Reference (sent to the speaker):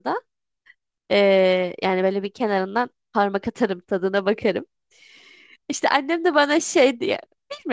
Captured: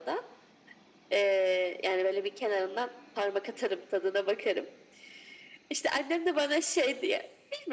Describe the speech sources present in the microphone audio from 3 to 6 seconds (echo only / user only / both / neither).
echo only